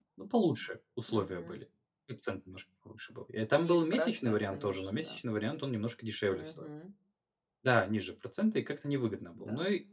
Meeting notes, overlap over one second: present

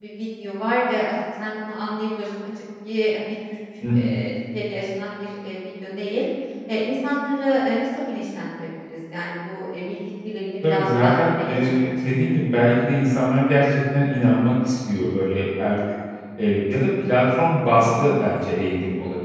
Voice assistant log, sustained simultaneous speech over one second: present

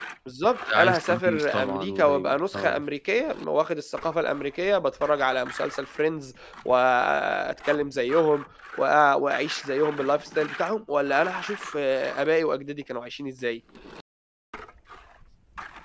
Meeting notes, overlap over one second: present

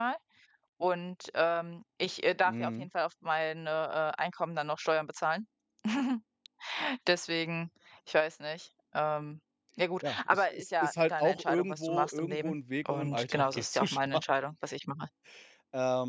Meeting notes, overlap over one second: present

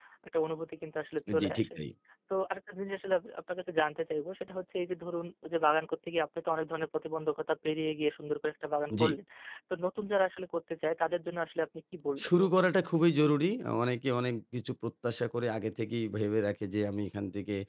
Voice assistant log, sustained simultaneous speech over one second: none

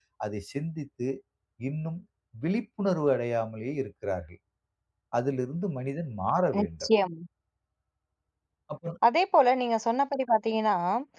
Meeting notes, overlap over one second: none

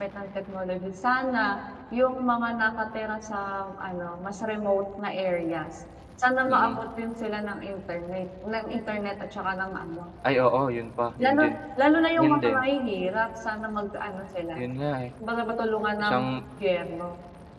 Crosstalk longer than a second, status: none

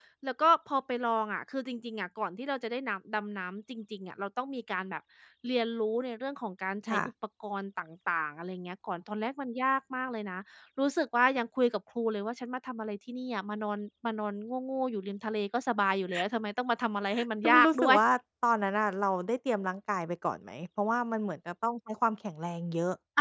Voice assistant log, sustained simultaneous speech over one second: none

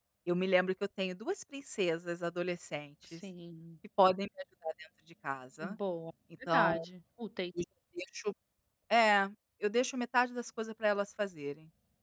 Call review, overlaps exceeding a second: none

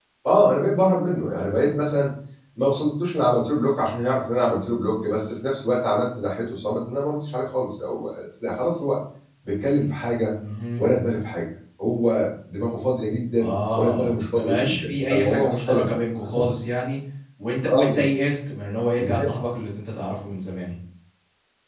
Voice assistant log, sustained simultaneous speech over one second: present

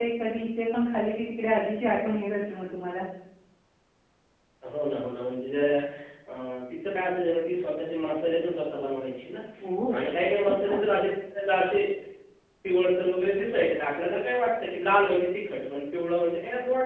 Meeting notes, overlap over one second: none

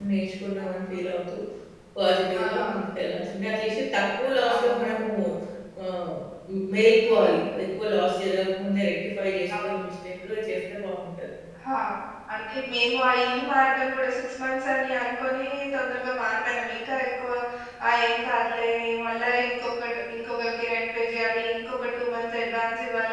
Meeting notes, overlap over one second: none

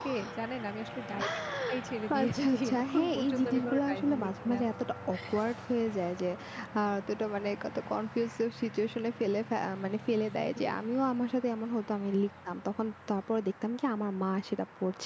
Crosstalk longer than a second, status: present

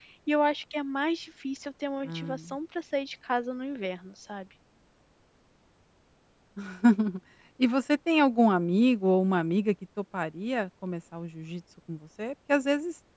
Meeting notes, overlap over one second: none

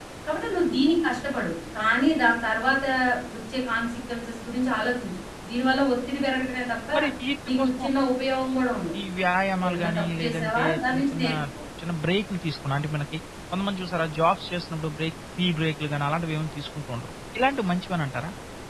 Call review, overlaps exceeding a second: present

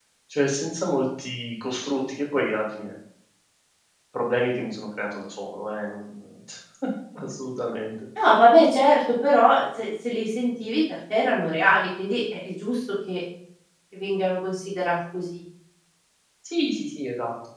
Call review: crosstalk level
none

